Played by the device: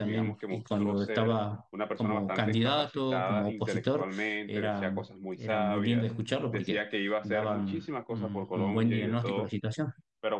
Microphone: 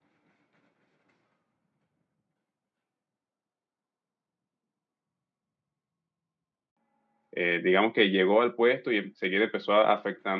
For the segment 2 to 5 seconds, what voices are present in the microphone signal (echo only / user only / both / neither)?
neither